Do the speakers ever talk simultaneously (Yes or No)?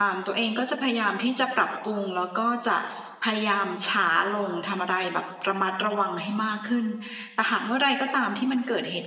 No